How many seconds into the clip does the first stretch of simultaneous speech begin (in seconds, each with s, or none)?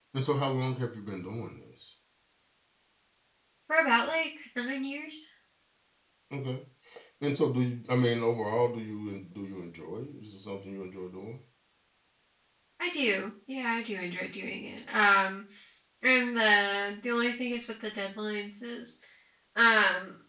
none